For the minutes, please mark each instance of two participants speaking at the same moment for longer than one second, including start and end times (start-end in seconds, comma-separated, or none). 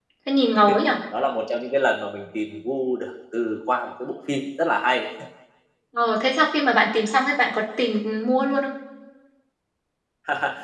none